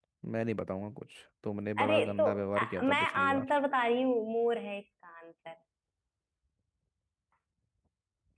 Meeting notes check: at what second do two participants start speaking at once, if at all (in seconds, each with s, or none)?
1.8 s